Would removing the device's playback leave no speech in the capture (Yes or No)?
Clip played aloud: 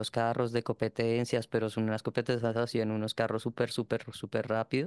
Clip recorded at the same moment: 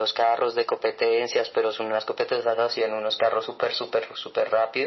Yes